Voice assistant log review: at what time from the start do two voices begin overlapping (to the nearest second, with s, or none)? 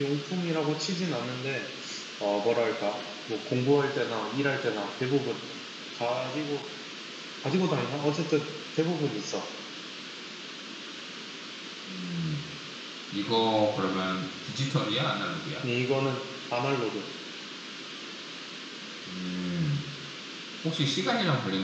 none